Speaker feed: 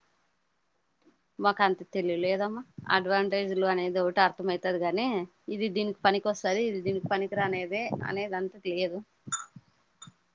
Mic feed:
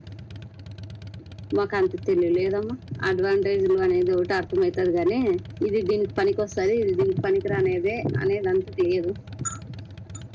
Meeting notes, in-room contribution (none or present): none